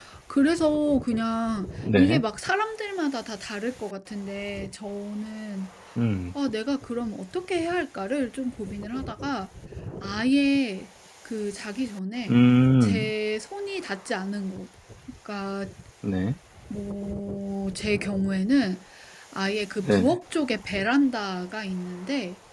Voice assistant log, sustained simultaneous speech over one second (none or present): none